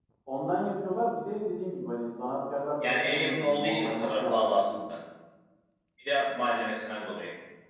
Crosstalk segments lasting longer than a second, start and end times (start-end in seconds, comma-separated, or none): 2.8-4.7